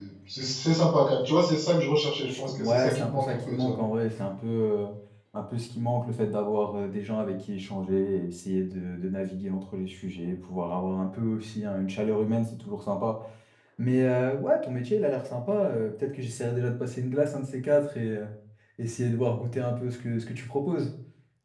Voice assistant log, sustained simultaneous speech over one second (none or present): present